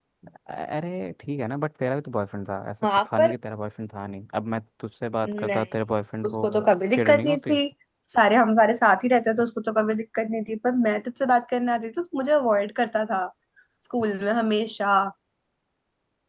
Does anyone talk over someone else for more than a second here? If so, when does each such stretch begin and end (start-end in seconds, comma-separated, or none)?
6.3-7.5